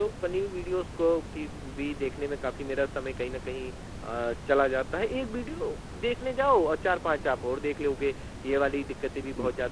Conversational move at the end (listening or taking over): listening